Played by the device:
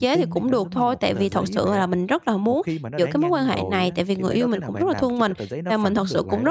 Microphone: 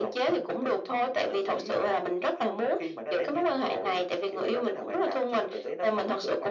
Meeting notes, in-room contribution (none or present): none